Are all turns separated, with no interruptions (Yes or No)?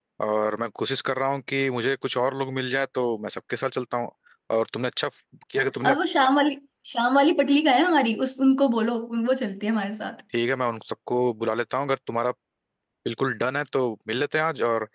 Yes